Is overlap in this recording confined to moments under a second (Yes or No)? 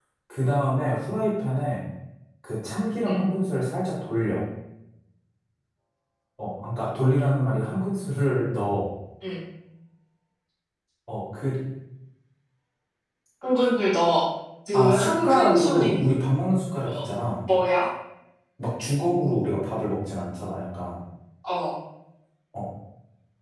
No